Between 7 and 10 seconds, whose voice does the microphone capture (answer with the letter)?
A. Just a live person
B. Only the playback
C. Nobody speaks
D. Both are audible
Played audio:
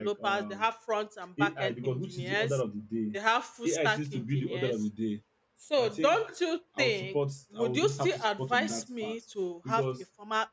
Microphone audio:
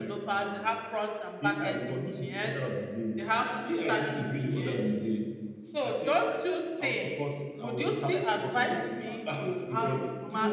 D